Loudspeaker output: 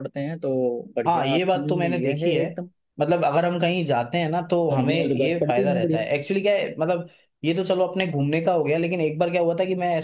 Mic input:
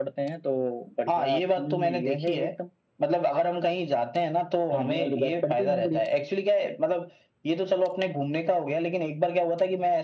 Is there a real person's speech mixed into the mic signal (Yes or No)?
No